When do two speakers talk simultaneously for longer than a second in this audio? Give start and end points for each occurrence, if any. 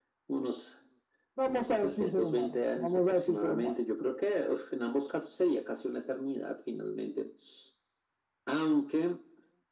1.5-3.7

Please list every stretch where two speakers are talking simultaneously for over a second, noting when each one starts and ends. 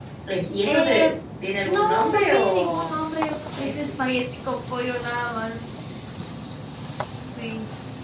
1.6-2.9

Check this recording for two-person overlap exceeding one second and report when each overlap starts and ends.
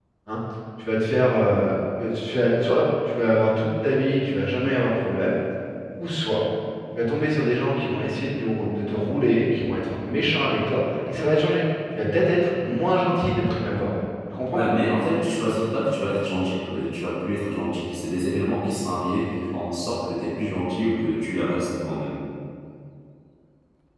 none

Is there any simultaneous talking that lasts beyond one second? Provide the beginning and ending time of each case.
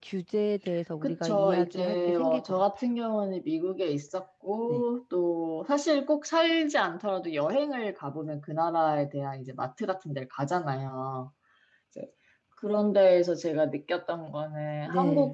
1.0-2.6

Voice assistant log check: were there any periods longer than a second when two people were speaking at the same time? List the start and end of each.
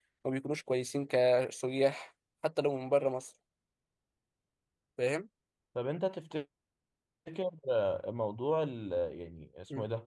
none

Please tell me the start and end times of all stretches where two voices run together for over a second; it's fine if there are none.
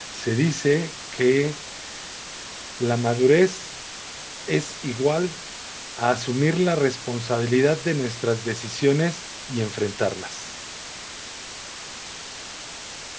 none

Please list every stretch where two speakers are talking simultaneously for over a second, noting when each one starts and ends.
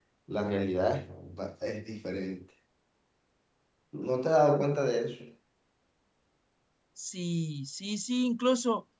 none

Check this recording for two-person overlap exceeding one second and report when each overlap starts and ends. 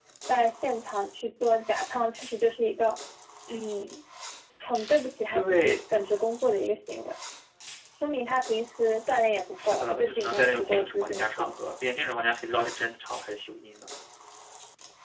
9.6-11.5

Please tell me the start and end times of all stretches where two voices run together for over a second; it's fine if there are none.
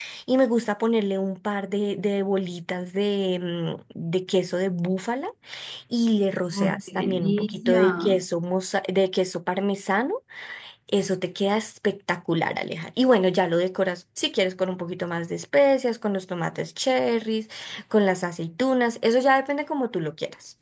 6.5-8.2

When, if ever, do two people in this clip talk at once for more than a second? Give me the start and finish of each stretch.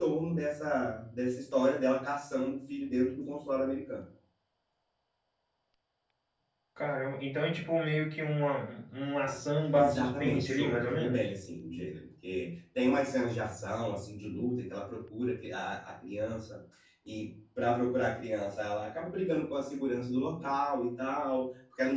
9.7-11.3

